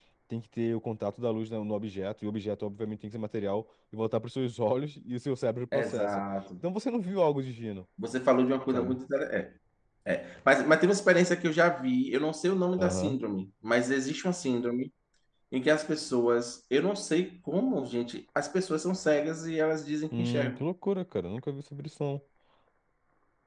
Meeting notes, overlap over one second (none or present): none